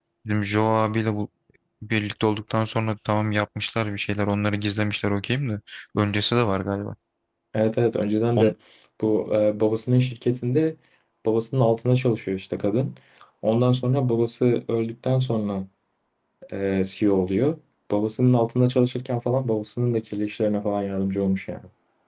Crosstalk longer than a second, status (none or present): none